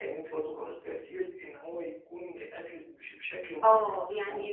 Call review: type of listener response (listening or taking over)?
taking over